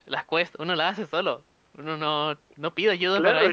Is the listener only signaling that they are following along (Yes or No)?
No